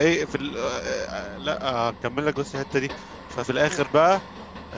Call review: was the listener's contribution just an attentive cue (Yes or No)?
Yes